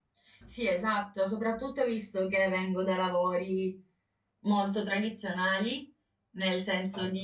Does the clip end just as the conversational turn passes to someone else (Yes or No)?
No